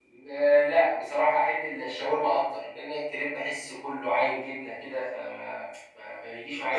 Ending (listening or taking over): taking over